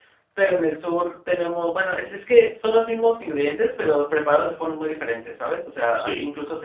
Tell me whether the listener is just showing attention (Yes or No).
Yes